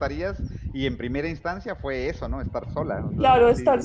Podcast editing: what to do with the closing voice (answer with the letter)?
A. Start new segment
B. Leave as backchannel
A